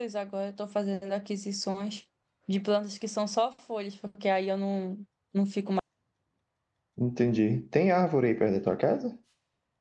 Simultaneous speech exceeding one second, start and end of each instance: none

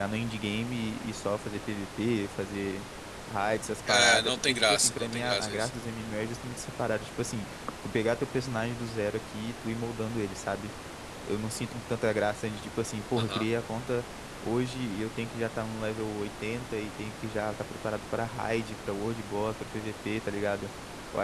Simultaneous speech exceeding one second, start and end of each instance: 3.9-5.7

